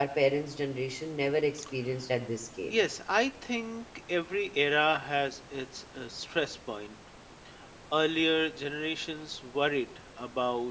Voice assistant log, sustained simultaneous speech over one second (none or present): none